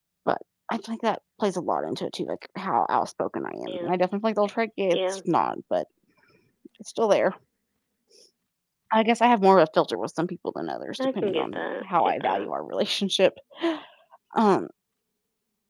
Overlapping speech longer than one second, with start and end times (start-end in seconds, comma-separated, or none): 11.0-12.5